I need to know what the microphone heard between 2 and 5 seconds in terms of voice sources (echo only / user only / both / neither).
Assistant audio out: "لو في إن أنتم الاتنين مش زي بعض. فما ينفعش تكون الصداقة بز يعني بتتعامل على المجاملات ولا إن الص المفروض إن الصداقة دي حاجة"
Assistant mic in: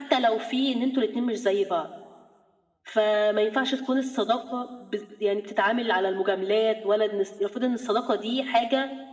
echo only